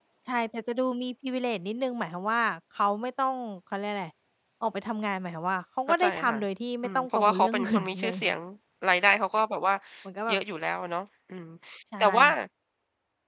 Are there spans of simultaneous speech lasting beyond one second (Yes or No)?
Yes